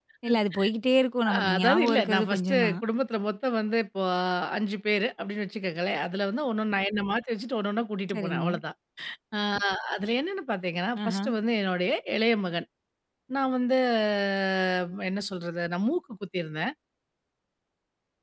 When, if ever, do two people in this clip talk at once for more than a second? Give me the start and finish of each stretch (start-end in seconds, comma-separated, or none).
1.3-2.8